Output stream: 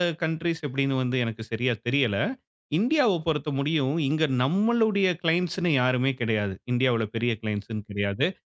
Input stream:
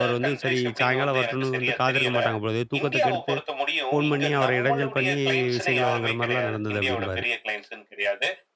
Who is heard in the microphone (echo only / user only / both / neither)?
both